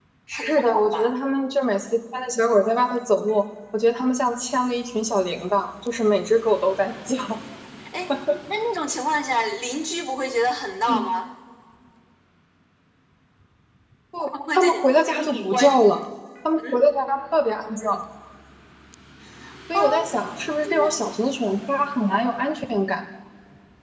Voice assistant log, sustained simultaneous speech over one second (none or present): present